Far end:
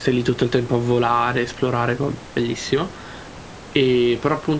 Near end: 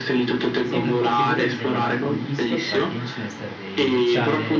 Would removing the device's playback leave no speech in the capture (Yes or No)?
No